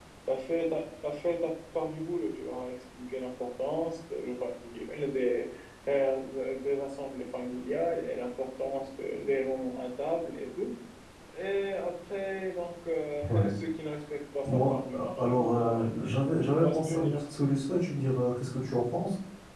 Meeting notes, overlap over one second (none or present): present